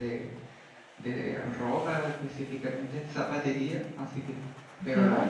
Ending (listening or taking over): listening